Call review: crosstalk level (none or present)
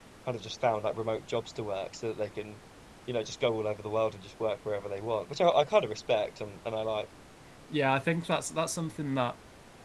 none